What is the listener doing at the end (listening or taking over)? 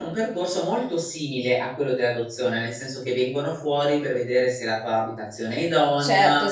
taking over